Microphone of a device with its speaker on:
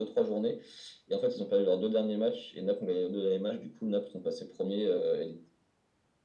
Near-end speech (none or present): none